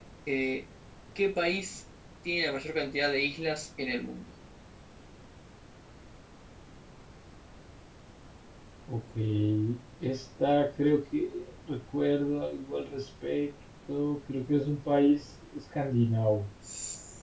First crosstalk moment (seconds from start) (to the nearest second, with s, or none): none